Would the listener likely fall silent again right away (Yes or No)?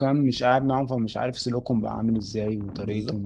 Yes